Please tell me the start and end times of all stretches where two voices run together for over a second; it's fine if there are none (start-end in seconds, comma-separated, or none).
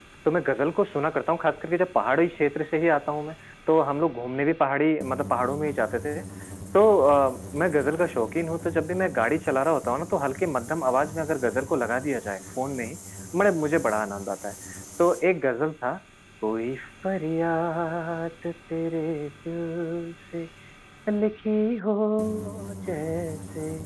none